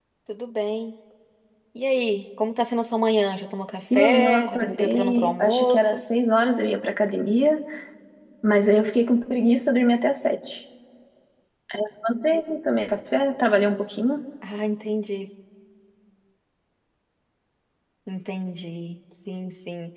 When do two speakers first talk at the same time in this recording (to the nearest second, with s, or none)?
4 s